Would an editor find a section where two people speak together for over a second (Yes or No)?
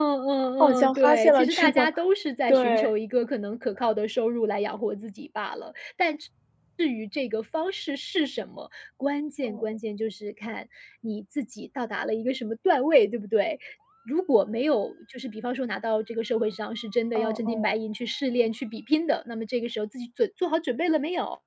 Yes